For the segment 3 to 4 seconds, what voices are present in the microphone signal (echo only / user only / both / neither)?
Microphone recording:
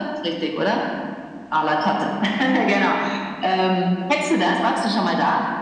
echo only